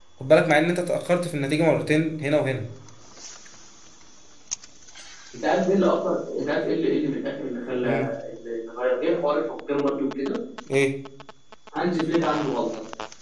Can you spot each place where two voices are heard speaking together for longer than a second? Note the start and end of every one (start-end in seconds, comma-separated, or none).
none